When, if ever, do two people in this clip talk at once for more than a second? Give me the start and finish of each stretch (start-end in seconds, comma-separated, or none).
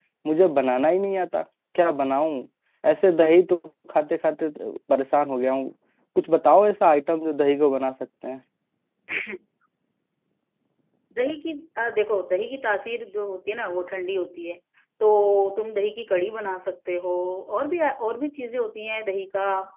none